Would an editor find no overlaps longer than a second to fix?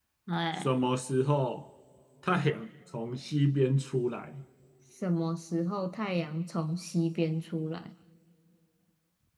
Yes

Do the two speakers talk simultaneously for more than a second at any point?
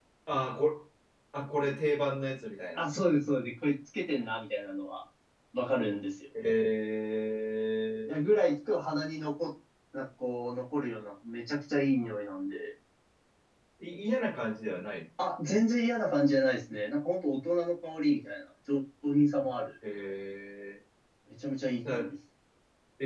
No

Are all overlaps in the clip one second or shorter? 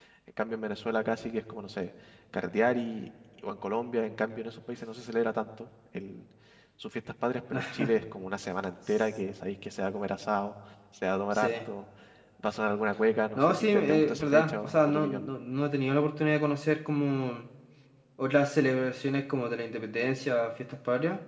No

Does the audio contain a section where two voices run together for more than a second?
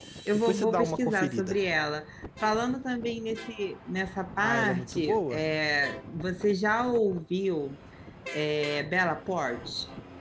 Yes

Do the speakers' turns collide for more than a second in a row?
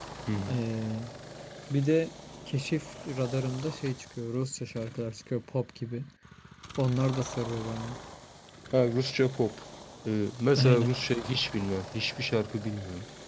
No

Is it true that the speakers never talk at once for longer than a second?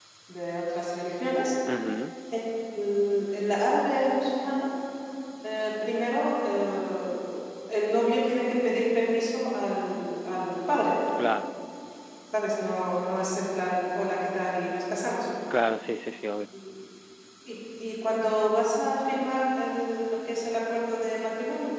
Yes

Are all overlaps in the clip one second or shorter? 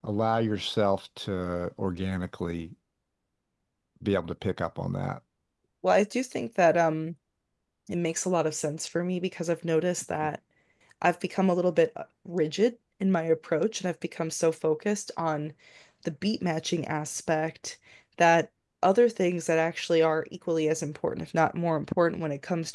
Yes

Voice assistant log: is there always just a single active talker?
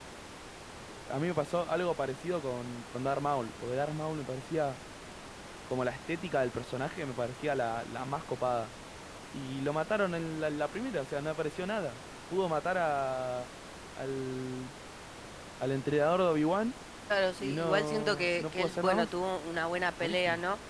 No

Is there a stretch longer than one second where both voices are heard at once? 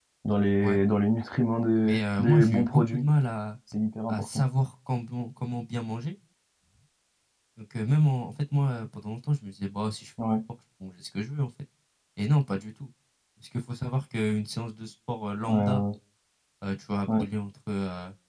Yes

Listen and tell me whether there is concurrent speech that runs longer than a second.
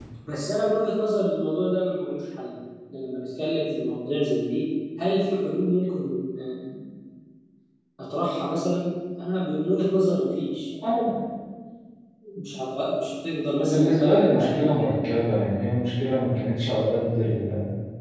Yes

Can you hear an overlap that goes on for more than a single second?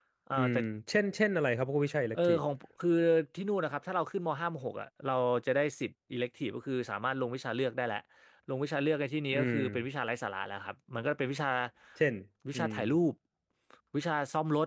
No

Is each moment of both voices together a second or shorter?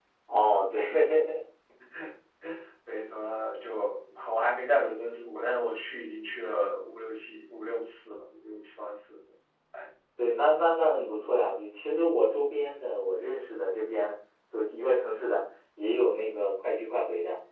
Yes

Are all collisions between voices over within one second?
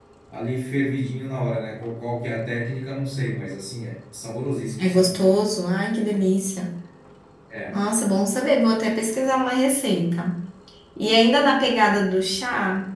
Yes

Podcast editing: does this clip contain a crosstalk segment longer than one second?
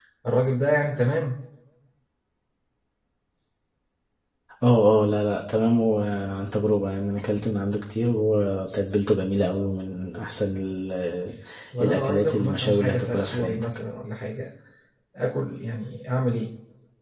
Yes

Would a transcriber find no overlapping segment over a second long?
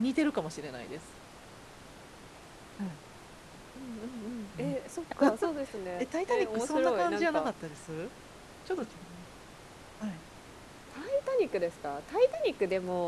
No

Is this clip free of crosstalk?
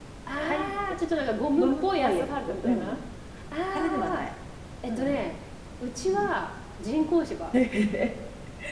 No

